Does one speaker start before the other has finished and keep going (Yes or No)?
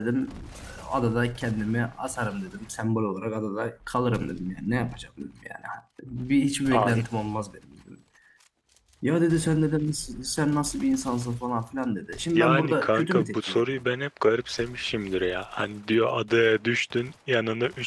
Yes